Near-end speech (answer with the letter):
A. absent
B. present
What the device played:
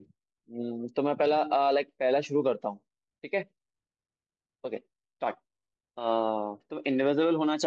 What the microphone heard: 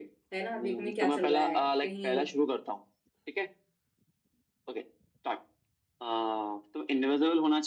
B